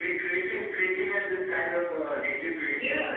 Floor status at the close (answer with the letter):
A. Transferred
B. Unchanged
A